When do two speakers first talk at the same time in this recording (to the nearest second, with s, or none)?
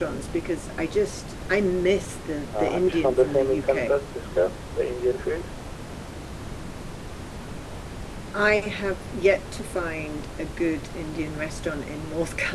3 s